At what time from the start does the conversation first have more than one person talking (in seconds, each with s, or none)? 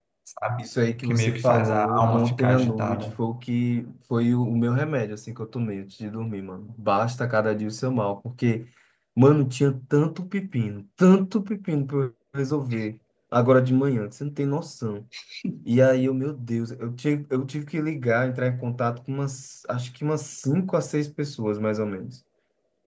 1.0 s